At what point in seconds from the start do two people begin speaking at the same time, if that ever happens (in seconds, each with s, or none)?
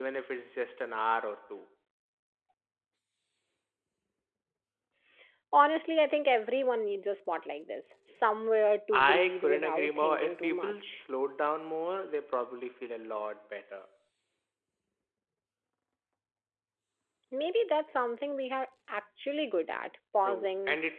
9.0 s